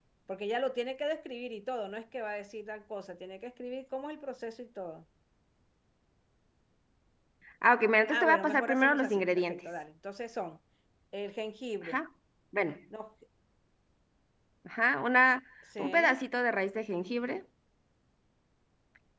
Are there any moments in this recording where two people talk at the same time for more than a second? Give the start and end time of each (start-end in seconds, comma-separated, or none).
8.1-9.7